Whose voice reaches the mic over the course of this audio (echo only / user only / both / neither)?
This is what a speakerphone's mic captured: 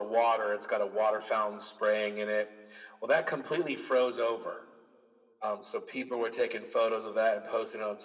echo only